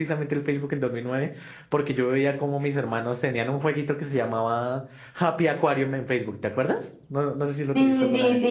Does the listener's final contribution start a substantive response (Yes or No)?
Yes